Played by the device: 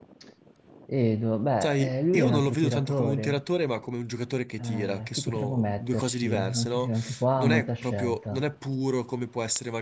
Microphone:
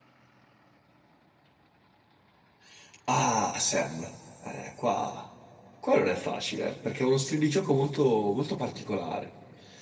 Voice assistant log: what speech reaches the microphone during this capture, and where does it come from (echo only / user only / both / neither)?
user only